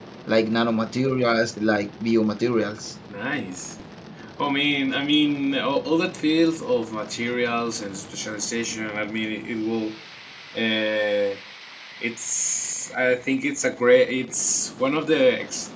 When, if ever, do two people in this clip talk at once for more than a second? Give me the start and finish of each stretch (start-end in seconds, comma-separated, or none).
none